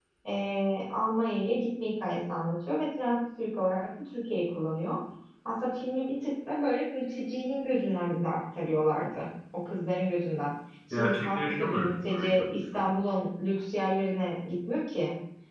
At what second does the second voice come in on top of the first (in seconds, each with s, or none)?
10.9 s